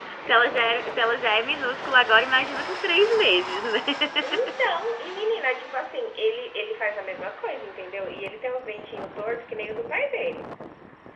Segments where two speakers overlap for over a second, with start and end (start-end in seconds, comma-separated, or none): none